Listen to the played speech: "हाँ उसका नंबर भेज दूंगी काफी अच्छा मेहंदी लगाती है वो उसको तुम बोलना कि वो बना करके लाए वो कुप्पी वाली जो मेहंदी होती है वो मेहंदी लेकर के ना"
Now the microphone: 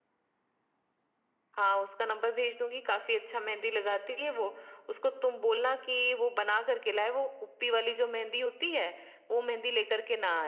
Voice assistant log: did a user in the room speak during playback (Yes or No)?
No